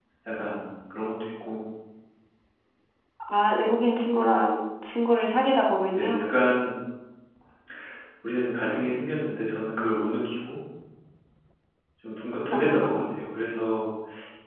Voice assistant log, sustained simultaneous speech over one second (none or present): none